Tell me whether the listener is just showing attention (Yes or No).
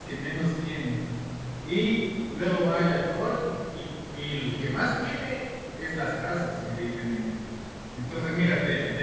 Yes